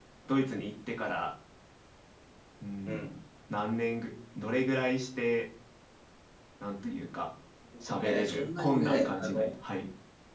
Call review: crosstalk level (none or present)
present